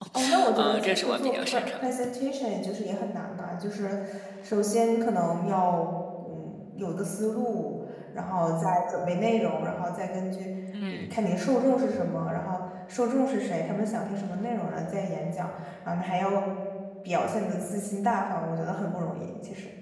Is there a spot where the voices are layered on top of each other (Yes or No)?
Yes